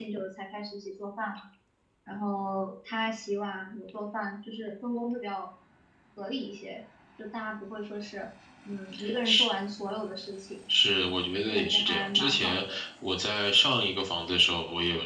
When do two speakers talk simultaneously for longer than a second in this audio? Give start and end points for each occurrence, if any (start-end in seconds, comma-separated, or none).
11.5-12.8